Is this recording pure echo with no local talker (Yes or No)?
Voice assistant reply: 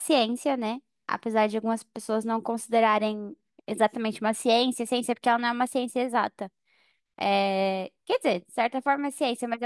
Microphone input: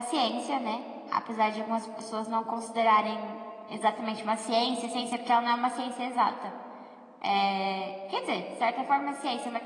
Yes